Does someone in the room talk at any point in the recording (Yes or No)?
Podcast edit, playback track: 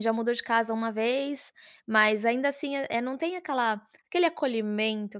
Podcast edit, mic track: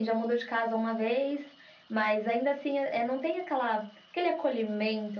No